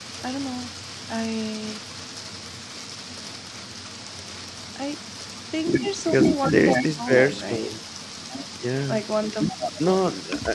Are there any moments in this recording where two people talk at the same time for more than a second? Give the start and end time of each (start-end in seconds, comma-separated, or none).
6.1-7.8